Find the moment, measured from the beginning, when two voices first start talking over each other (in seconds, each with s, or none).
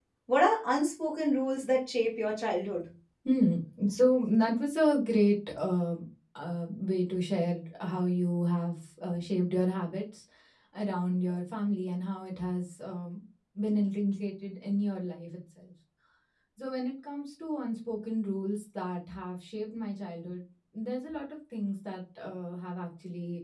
none